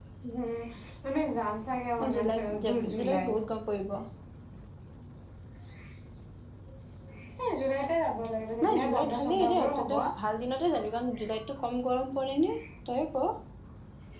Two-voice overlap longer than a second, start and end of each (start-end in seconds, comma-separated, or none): 2.0-3.4, 8.6-9.9